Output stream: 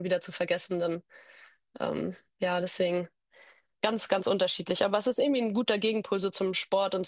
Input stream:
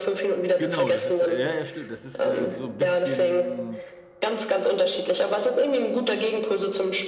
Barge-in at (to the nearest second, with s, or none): 1 s